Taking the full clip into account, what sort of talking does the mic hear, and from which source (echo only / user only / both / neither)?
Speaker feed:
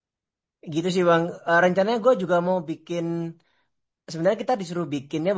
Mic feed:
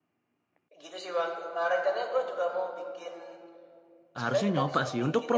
both